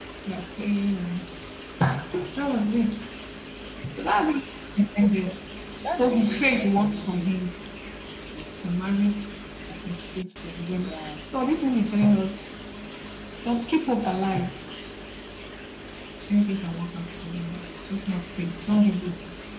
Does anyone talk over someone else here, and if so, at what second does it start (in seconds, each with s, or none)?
5.9 s